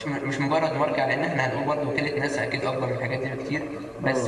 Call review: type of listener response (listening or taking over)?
listening